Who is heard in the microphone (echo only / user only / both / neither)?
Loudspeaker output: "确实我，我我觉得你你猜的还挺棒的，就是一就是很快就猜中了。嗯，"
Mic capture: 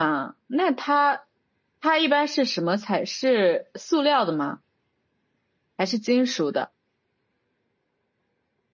user only